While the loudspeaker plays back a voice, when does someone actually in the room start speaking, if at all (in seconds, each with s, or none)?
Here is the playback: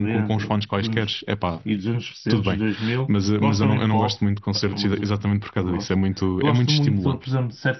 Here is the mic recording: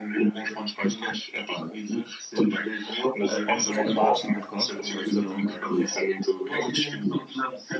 3.2 s